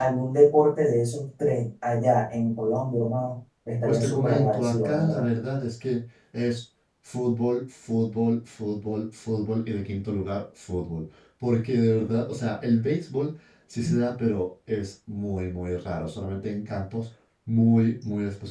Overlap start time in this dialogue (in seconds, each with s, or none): 3.8 s